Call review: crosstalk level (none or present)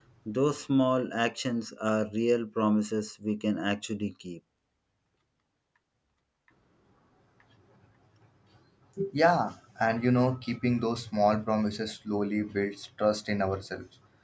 none